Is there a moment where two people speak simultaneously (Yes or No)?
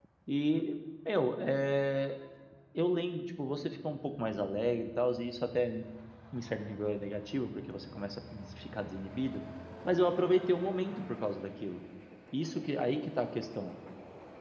No